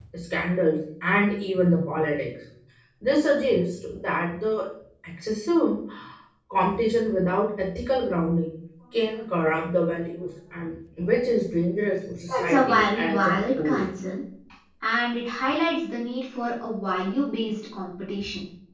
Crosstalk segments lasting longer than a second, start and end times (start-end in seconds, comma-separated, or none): 12.3-13.8